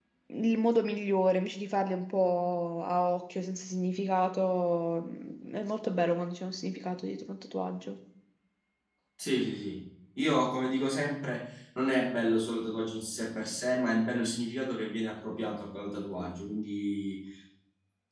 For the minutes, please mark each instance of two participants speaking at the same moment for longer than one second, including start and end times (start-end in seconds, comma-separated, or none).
none